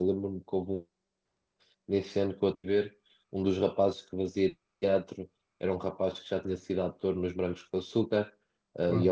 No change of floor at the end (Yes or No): Yes